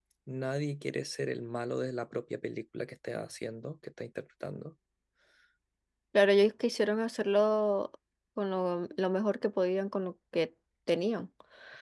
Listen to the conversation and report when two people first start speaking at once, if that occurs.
none

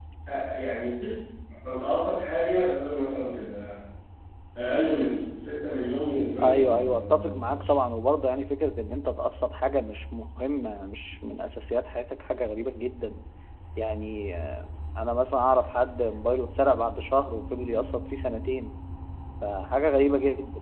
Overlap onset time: 6 s

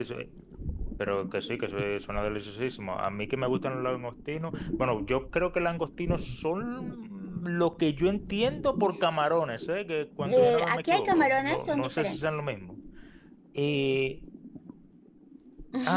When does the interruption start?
10 s

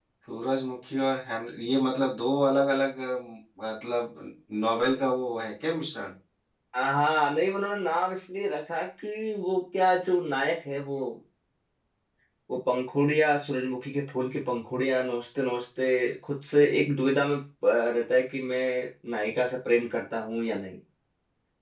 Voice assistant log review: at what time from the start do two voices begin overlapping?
none

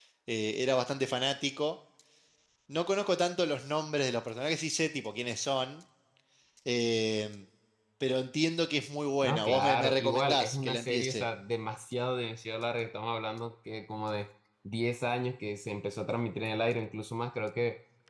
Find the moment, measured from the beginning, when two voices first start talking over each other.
9 s

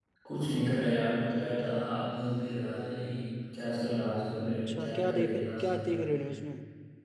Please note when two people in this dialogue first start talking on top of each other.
5 s

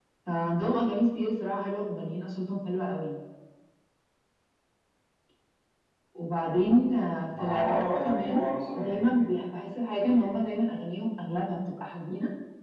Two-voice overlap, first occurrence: 7 s

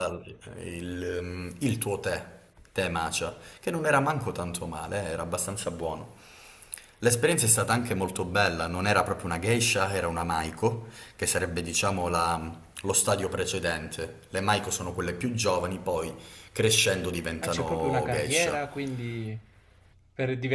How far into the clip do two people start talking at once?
17 s

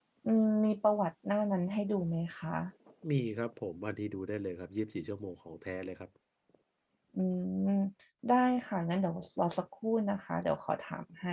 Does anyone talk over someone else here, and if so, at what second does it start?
none

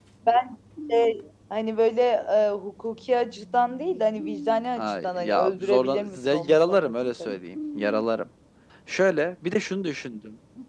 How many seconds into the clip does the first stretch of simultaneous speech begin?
5 s

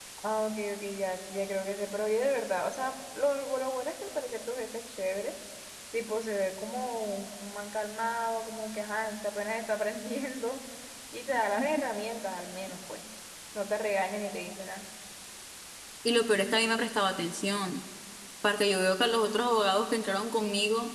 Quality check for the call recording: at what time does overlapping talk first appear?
none

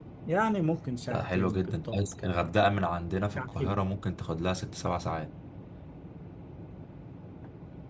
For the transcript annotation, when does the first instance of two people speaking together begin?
1 s

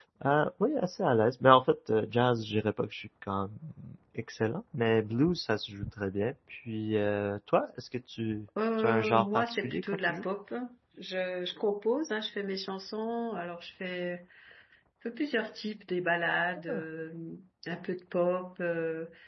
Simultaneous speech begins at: 9 s

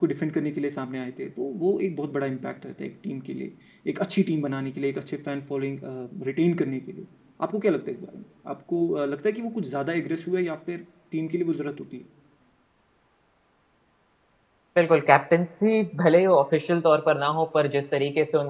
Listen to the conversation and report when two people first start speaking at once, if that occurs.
none

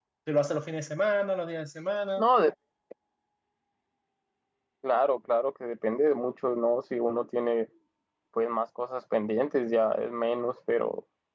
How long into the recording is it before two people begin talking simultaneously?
none

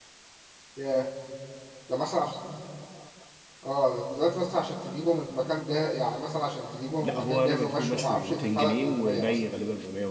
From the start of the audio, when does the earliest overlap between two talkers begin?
7 s

